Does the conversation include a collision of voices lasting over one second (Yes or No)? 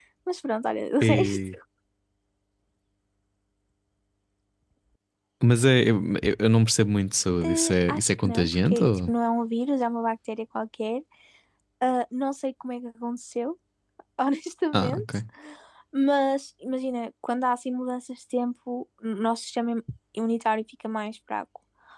Yes